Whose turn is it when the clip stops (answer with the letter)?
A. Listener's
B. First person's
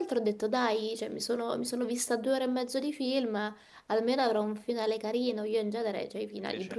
B